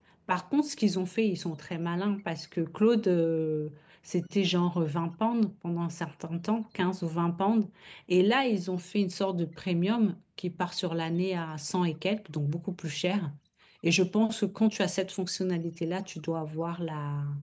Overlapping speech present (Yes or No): No